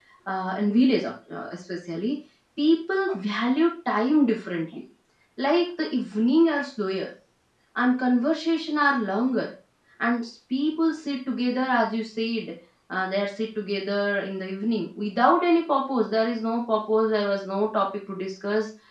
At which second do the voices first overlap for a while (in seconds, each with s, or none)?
none